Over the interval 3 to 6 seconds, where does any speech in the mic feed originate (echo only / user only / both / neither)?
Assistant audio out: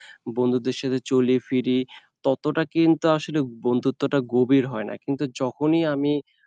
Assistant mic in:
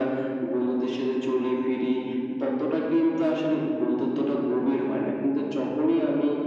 echo only